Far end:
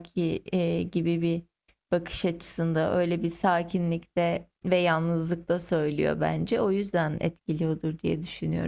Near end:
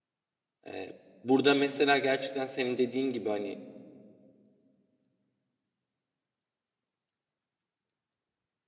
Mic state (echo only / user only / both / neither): user only